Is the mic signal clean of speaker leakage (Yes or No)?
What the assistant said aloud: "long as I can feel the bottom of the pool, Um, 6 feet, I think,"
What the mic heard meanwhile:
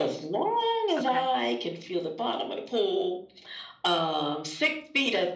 No